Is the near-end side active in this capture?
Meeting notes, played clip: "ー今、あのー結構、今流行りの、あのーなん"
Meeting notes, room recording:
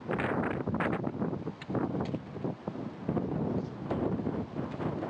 No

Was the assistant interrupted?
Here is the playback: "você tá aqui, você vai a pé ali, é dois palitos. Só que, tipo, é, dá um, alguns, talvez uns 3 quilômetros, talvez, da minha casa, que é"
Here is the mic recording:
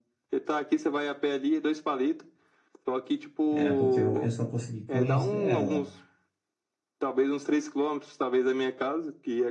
Yes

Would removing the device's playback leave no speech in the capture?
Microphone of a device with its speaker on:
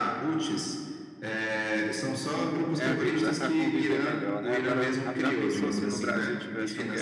No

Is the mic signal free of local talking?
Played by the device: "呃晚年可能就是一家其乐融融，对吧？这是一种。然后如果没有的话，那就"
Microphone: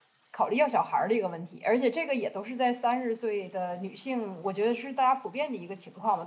No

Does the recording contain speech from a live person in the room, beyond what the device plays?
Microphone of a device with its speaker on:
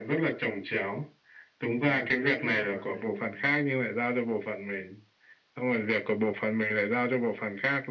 Yes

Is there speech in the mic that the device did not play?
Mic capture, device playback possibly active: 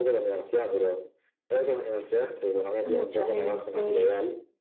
Yes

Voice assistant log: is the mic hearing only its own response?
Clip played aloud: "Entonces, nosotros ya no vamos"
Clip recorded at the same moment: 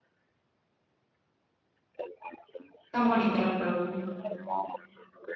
No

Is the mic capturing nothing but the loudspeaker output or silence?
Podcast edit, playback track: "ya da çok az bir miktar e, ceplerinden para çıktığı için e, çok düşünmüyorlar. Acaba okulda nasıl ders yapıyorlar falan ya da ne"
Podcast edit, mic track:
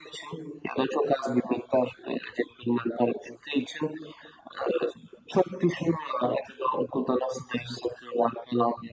Yes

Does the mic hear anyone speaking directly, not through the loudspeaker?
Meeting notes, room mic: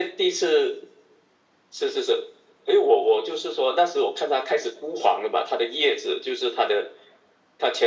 No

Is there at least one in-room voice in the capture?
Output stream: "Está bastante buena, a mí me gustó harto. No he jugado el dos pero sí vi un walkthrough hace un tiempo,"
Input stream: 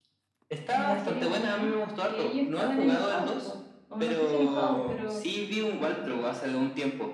Yes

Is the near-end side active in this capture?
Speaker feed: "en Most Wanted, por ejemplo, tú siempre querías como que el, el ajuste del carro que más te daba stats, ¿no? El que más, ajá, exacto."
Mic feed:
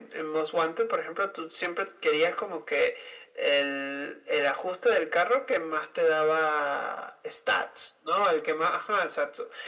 No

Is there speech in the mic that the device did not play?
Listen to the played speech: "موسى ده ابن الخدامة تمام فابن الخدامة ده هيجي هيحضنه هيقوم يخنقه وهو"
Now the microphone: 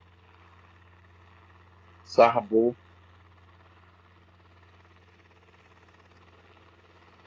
Yes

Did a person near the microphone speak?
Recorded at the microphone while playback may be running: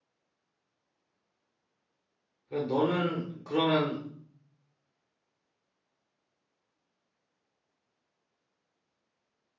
Yes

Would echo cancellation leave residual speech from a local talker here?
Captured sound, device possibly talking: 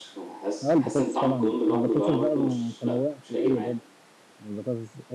Yes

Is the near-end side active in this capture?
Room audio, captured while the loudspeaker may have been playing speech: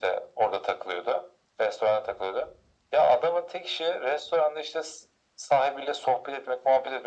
No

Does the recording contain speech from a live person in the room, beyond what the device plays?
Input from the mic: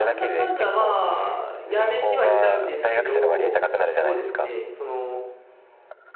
Yes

